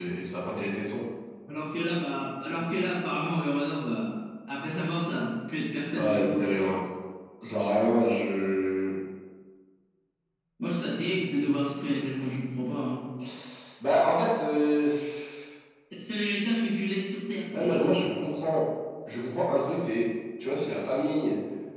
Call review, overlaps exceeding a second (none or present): none